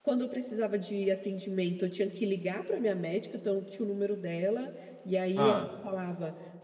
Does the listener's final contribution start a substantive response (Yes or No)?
No